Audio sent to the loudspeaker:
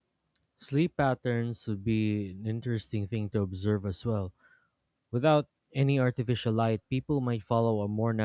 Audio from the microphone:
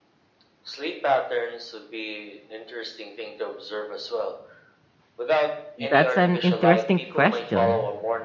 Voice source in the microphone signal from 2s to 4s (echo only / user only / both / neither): echo only